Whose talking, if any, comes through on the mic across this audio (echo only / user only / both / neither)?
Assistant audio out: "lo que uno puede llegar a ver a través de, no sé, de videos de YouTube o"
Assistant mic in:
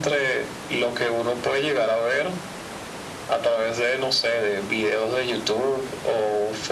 echo only